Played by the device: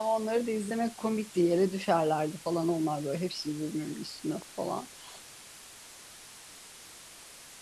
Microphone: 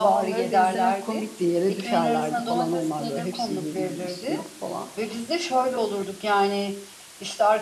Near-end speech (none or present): present